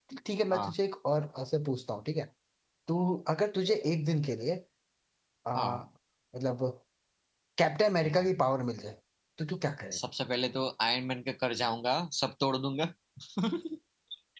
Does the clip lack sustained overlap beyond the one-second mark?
Yes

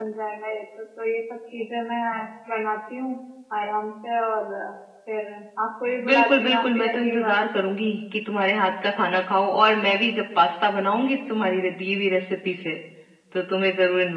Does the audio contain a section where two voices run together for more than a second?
Yes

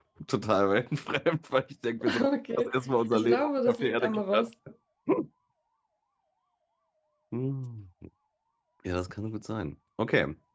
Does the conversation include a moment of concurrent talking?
Yes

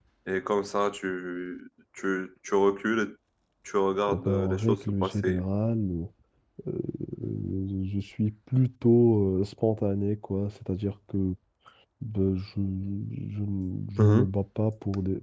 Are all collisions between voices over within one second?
No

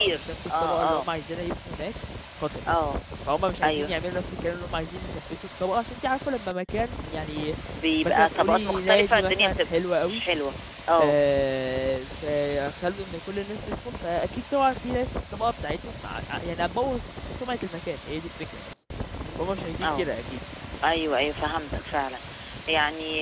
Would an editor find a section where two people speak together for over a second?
Yes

